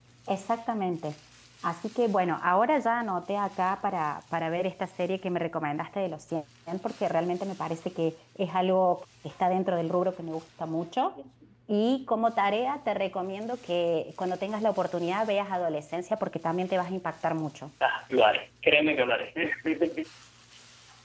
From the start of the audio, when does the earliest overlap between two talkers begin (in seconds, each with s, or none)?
none